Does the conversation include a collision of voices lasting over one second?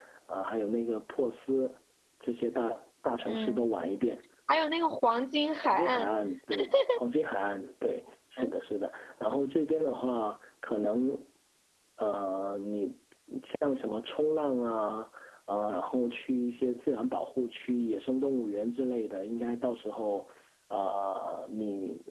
No

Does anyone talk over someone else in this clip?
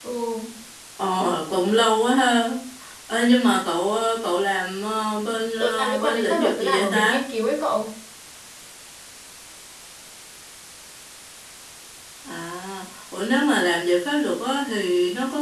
Yes, from 5.6 s

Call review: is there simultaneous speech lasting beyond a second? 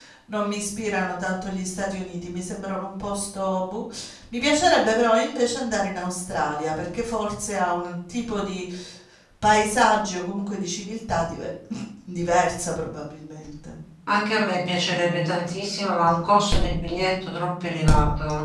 No

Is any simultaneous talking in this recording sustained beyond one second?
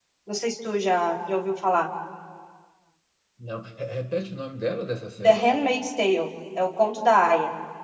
No

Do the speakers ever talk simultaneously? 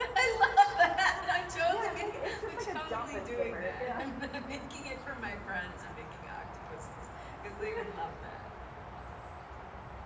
Yes, from 1.7 s

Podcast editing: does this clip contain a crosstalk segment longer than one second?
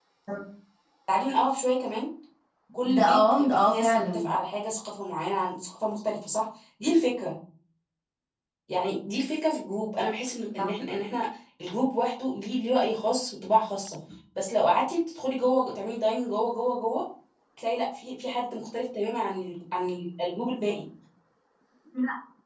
Yes, from 3.0 s

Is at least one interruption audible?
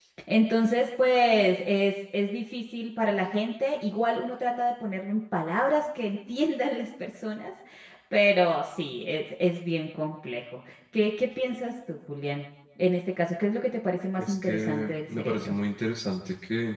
Yes, from 14.2 s

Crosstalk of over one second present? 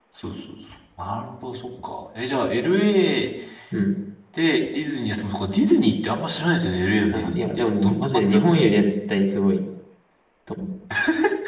Yes, from 7.1 s

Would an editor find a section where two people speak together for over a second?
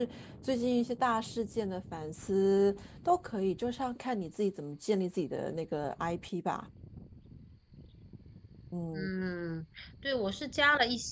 No

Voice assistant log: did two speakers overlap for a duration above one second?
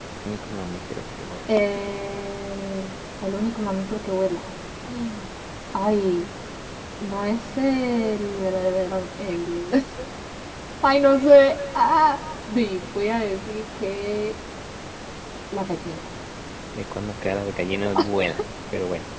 No

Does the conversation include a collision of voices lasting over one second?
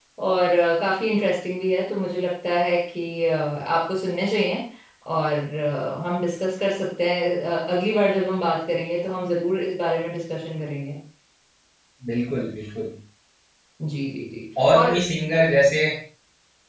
No

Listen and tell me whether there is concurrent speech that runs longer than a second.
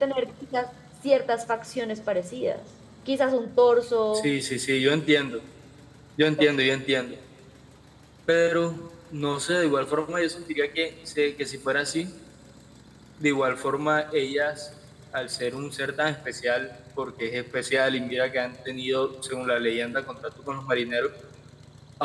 No

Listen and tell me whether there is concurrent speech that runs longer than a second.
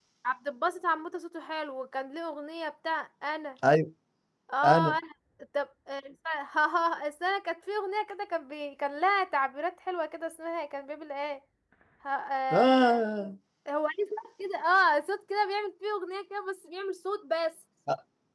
No

